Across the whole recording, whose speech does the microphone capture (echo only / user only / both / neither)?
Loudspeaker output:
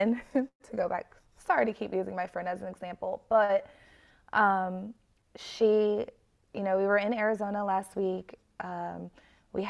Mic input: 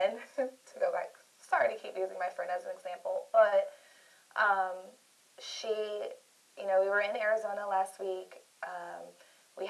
echo only